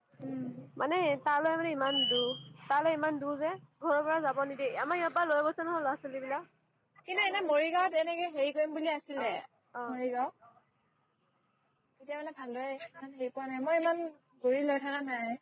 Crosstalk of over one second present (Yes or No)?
No